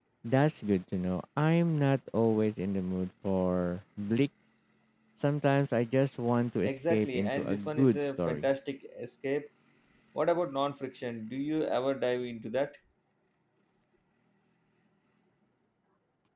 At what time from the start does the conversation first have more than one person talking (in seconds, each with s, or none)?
6.6 s